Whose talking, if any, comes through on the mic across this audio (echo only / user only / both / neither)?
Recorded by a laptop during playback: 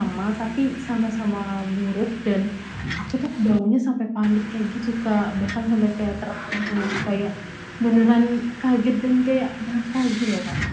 echo only